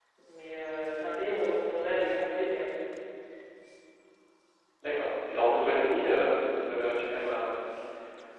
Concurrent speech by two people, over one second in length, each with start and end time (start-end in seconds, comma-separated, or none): none